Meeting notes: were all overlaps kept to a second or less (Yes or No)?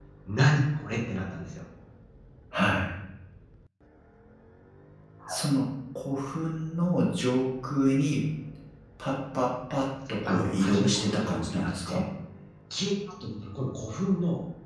No